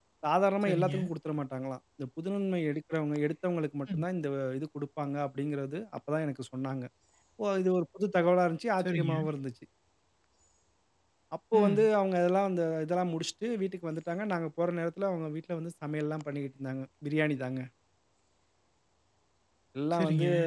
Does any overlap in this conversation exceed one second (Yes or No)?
No